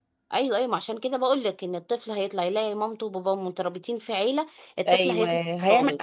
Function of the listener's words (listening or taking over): taking over